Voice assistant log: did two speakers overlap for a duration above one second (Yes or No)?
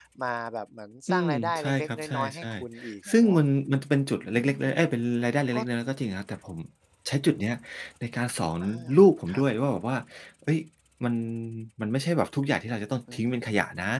Yes